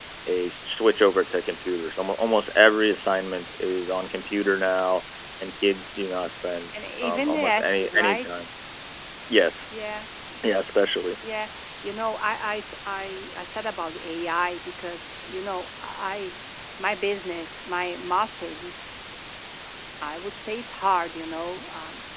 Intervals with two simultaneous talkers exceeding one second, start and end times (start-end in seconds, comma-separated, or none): 7.0-8.3